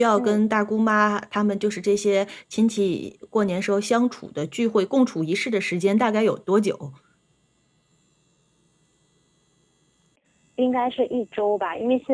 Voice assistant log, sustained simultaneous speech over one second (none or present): none